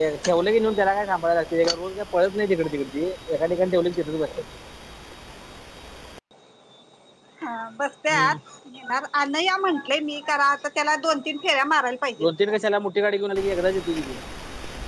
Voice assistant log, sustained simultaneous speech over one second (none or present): none